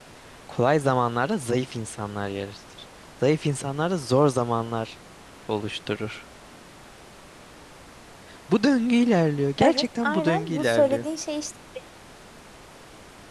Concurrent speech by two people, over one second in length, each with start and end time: 9.6-11.1

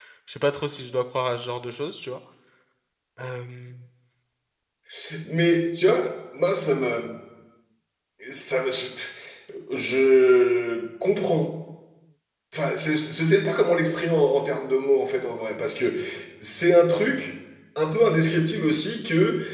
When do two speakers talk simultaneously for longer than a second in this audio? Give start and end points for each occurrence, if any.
none

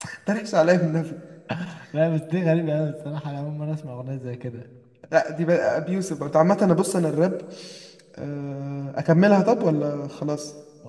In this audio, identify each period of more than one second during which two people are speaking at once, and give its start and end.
none

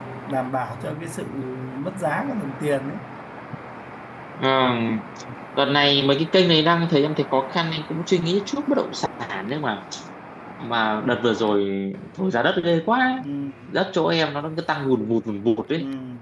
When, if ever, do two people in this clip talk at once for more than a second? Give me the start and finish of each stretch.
none

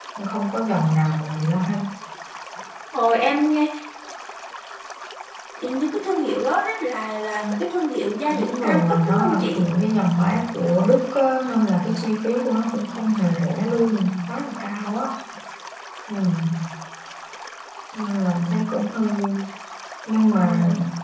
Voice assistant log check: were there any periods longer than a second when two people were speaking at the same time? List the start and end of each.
8.3-9.6

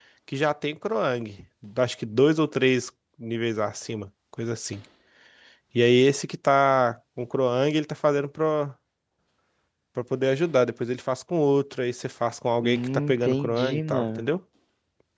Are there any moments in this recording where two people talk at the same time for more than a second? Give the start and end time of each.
12.6-14.2

